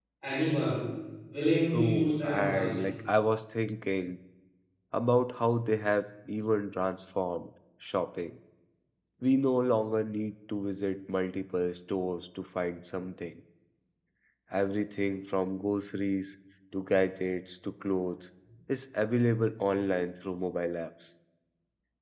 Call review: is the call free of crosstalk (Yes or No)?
No